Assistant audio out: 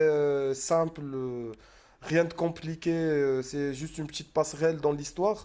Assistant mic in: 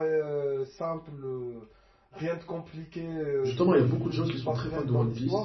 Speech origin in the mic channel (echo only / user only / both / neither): both